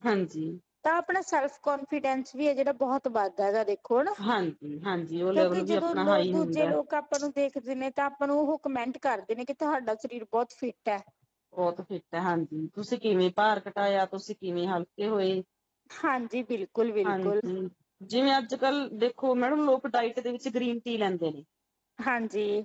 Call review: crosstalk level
present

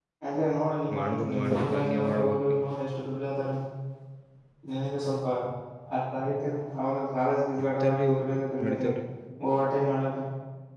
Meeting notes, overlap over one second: present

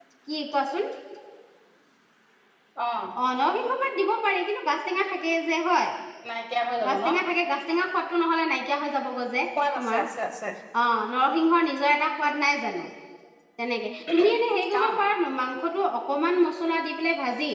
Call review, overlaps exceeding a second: none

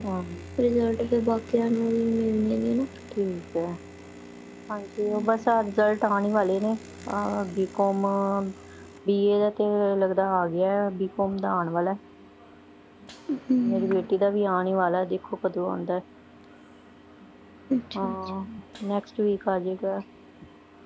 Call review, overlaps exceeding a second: none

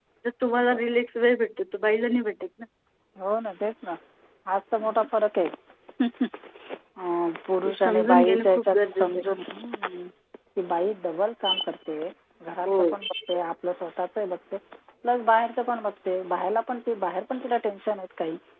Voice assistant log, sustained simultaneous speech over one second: present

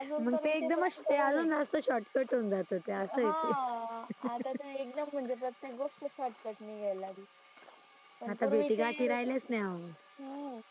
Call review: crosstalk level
present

